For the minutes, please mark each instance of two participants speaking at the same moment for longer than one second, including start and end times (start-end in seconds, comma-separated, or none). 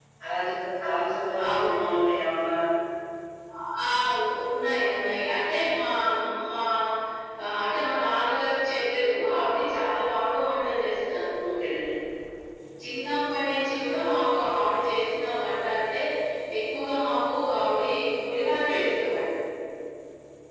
none